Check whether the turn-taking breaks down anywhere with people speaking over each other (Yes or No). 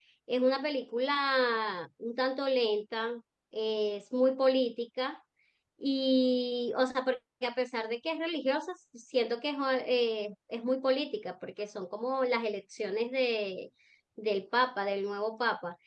No